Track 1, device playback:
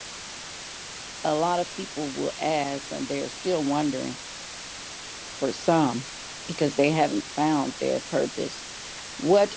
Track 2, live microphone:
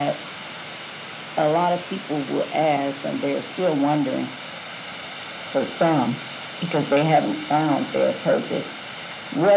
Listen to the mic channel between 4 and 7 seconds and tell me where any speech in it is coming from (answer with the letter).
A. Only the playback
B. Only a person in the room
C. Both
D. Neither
A